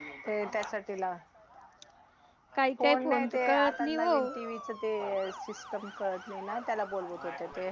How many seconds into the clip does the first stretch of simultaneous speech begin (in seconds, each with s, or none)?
2.8 s